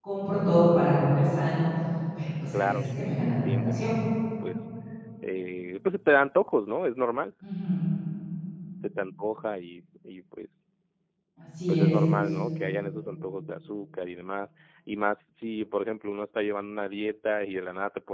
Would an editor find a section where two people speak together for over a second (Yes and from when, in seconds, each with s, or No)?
Yes, from 2.5 s